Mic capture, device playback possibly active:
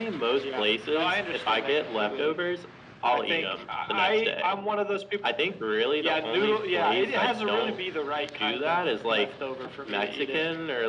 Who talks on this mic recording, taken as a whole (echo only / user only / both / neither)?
echo only